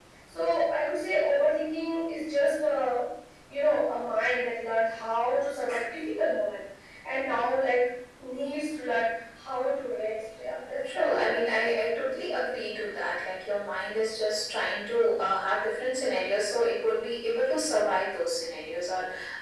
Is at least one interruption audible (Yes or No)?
Yes